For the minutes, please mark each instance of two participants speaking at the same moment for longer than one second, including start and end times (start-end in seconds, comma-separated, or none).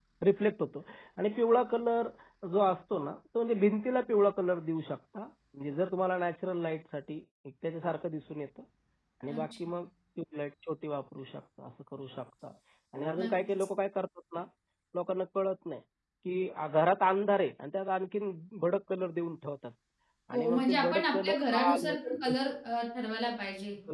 20.3-22.3